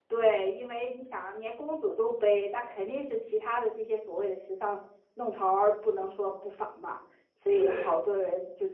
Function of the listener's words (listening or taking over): listening